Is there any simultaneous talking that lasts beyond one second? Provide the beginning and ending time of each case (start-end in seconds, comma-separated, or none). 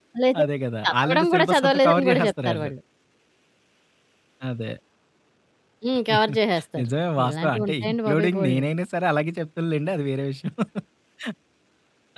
0.8-2.7, 7.2-8.6